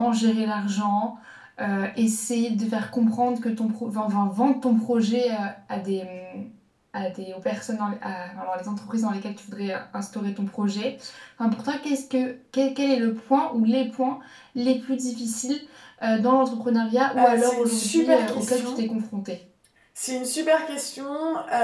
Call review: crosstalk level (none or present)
present